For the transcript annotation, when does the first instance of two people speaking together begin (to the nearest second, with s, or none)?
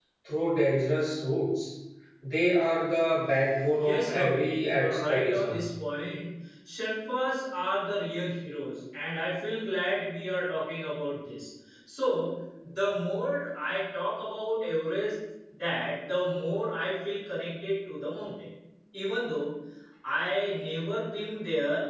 4 s